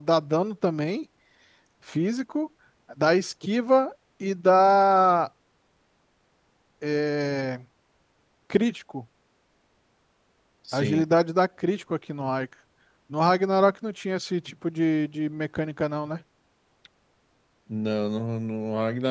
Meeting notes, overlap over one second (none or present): none